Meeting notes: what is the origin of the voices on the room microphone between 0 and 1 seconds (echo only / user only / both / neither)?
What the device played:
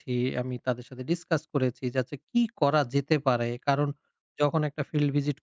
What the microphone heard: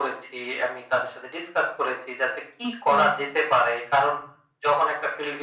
echo only